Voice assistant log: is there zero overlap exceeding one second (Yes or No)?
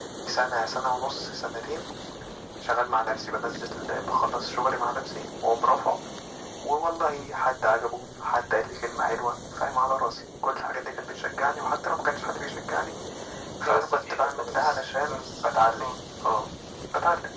No